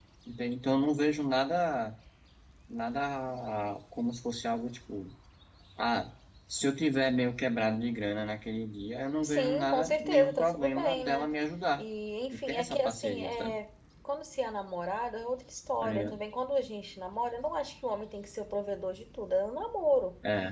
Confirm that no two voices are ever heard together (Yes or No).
No